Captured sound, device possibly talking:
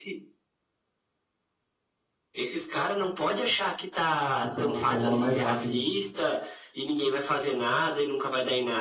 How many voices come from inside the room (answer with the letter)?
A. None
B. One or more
B